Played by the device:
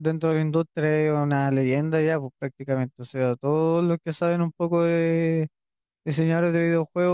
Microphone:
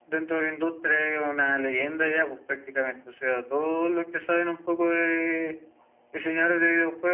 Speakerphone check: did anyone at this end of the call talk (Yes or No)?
No